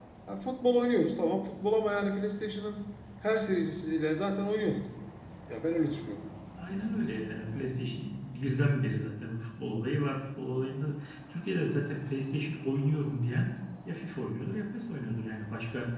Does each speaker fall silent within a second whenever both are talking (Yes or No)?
Yes